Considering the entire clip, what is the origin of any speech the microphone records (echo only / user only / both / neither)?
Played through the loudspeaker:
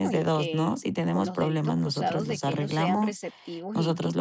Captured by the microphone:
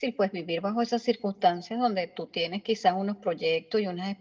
user only